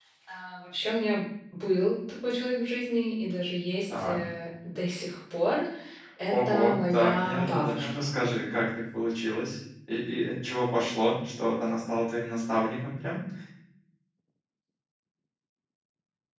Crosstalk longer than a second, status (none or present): present